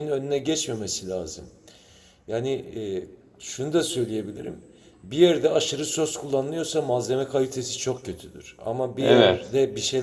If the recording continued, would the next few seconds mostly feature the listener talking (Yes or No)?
No